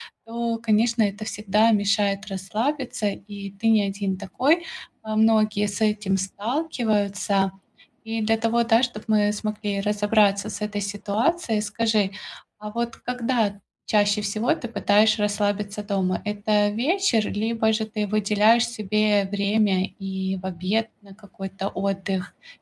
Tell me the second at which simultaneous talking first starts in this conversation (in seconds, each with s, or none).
none